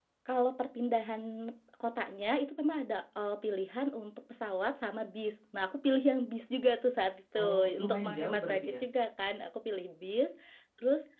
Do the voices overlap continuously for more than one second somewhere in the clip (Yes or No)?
Yes